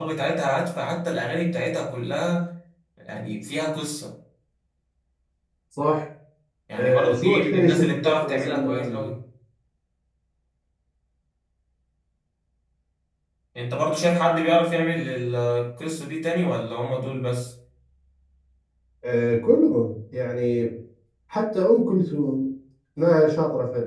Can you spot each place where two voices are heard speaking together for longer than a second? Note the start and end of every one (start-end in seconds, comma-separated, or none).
6.8-9.1